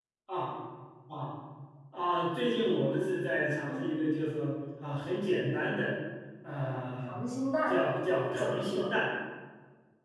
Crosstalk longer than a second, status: none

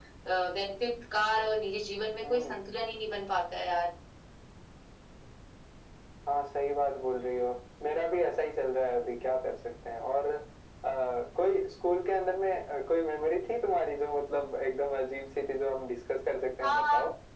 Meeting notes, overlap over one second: none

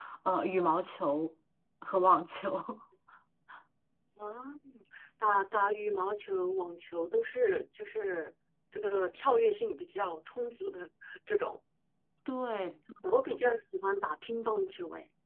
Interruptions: none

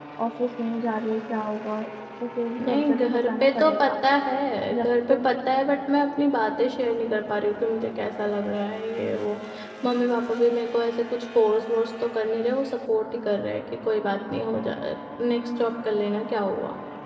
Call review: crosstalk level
present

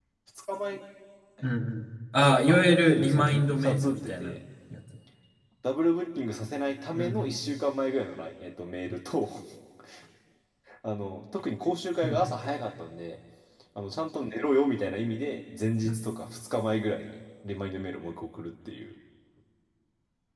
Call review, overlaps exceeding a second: present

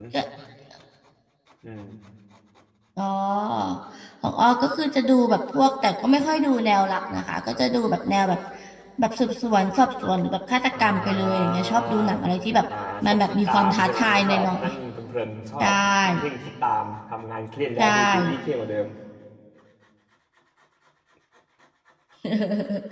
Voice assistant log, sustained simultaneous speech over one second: present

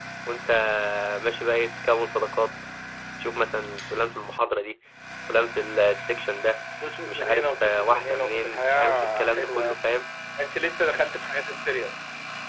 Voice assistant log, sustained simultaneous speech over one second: present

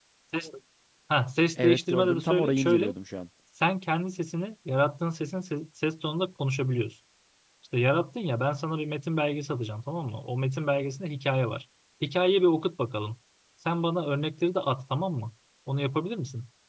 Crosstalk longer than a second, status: present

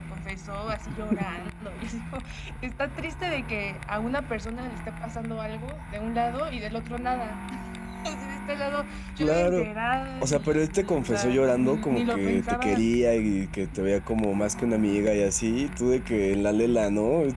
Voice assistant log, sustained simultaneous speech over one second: present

